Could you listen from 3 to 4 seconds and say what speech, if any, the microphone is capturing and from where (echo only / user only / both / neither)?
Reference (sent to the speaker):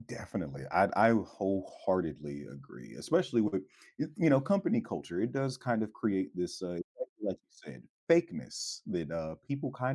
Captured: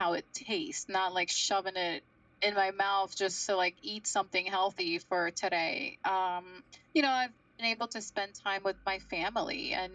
user only